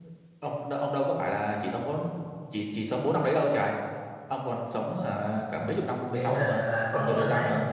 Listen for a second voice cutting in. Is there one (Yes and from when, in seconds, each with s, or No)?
Yes, from 6.1 s